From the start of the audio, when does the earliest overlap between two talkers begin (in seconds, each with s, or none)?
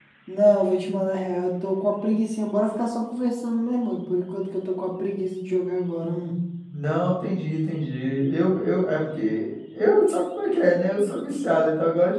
none